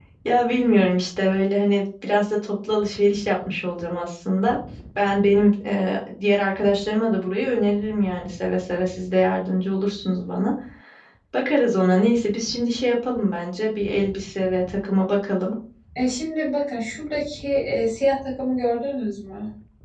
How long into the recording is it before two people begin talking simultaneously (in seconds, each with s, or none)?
none